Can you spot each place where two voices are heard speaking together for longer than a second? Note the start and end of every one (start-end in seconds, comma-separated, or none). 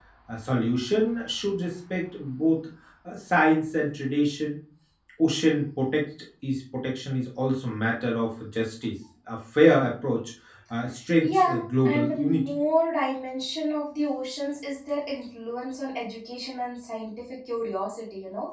11.2-12.5